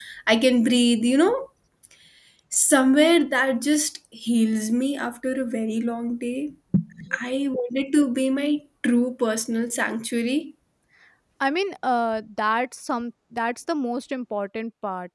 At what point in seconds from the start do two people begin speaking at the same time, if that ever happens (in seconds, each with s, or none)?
none